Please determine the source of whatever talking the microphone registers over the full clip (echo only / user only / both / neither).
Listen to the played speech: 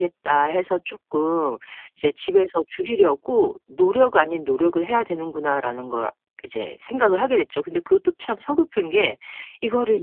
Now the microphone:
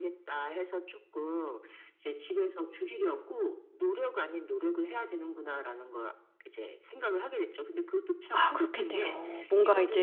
both